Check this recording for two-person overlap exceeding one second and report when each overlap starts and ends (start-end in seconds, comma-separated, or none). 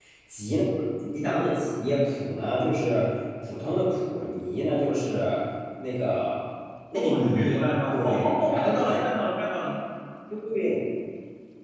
6.9-9.0